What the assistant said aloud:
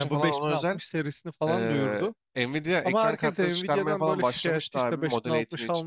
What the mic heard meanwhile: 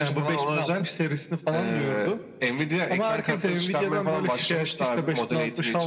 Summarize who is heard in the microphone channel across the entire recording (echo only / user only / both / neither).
echo only